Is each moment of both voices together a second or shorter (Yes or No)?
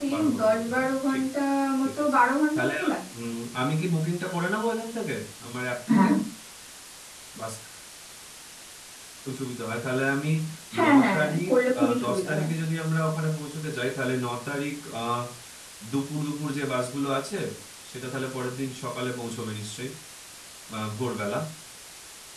No